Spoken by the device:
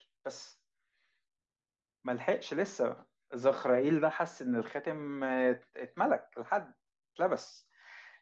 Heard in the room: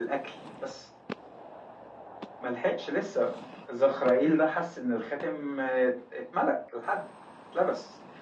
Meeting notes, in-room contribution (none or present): none